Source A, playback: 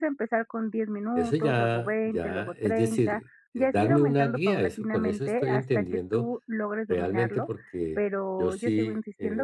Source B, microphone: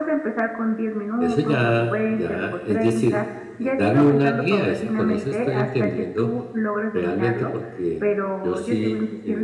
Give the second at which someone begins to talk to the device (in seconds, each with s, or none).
none